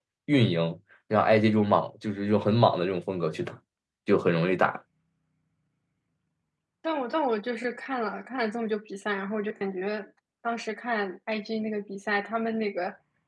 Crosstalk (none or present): none